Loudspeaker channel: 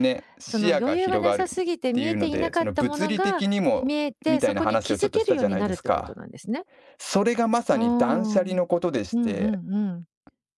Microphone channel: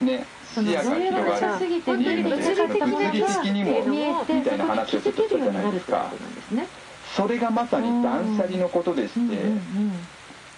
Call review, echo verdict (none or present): present